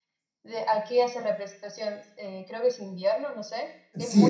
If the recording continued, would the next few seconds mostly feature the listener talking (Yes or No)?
Yes